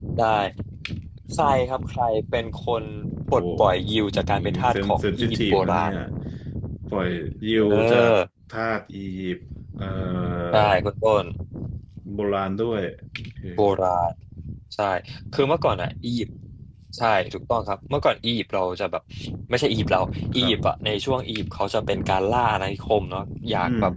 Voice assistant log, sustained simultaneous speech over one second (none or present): present